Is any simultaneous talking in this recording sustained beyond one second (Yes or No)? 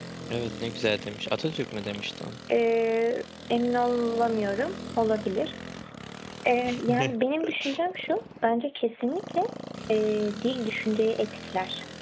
No